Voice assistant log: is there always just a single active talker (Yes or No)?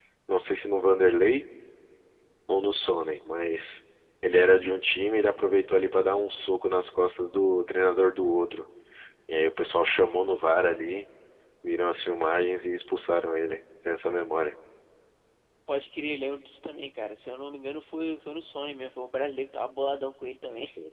Yes